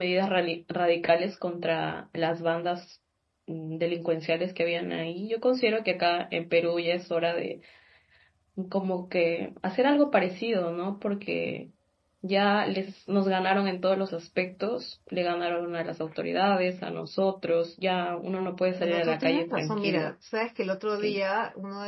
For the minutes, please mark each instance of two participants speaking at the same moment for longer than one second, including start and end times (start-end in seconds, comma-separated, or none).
18.8-20.1